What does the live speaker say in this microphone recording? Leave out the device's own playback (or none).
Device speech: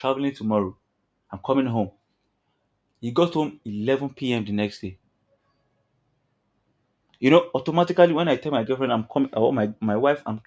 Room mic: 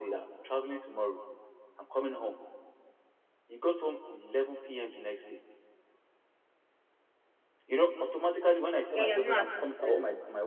Yeah, you're not assisting.